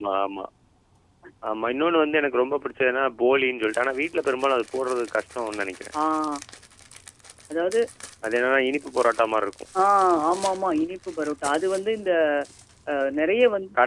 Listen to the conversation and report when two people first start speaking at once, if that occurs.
none

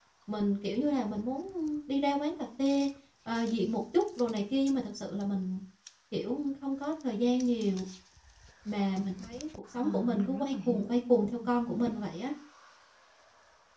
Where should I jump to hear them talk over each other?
10 s

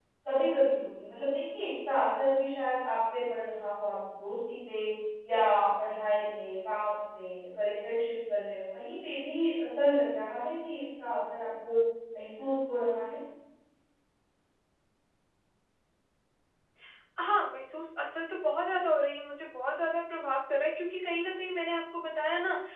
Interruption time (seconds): none

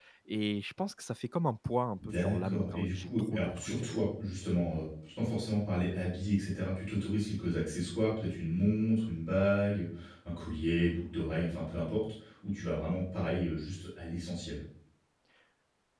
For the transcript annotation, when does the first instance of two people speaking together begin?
2 s

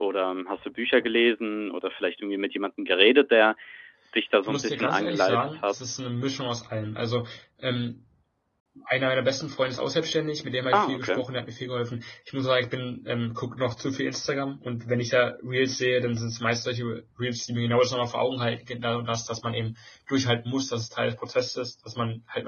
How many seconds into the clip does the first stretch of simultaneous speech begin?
4 s

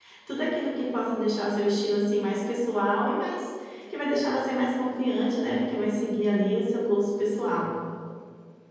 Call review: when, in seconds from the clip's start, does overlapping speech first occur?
none

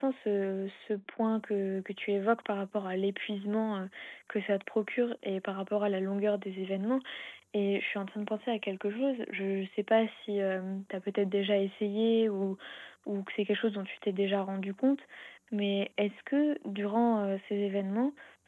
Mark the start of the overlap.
none

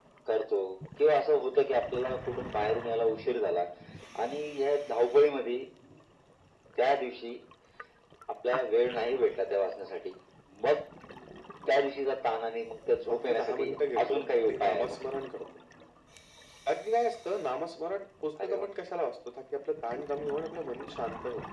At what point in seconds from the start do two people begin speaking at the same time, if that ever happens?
13 s

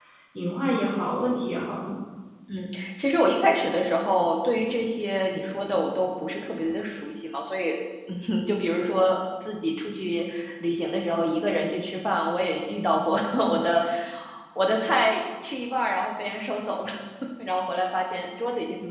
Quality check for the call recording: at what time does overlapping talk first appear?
none

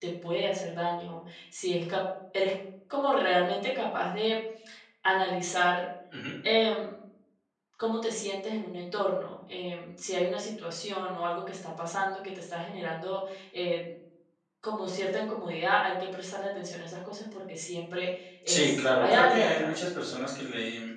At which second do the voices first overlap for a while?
18 s

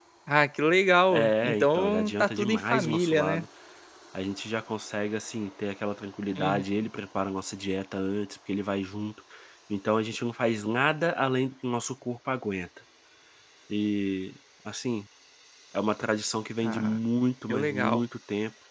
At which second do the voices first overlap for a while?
1 s

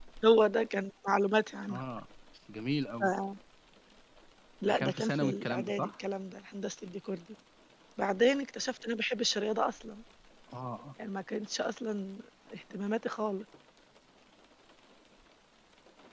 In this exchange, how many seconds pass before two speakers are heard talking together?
5 s

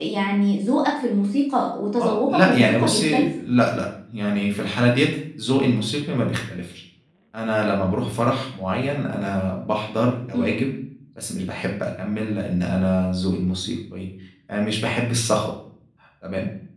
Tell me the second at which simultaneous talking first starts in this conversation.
2 s

